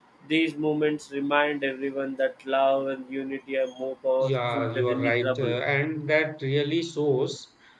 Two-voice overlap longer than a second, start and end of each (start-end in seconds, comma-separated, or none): 4.2-5.5